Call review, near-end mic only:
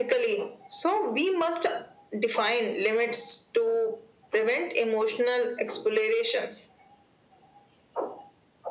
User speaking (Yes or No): No